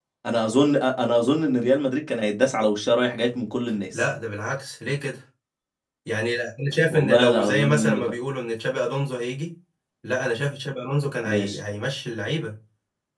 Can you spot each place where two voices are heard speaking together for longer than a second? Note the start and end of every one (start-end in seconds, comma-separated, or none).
6.9-8.1